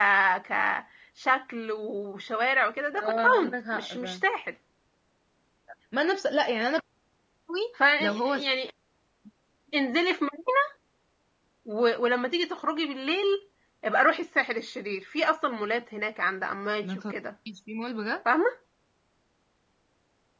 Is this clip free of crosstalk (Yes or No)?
No